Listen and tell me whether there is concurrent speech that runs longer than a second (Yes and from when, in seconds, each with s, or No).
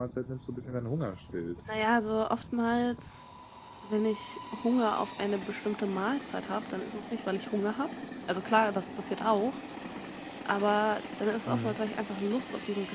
No